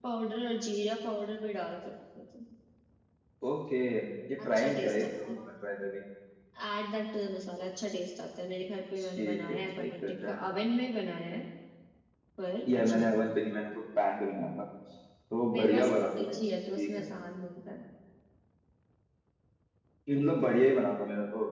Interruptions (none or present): present